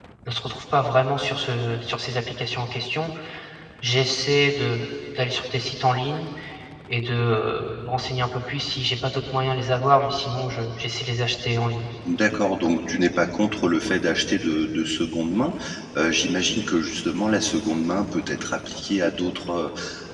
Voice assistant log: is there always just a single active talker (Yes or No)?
Yes